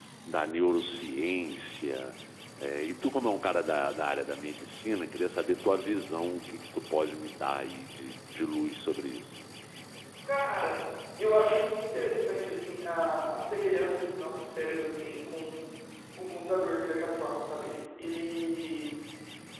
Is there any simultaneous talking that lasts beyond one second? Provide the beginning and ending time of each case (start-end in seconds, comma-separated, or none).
none